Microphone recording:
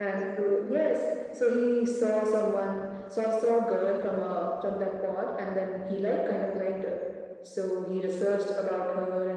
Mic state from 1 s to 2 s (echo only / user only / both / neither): echo only